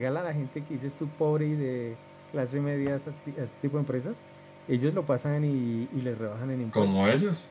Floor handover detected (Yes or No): Yes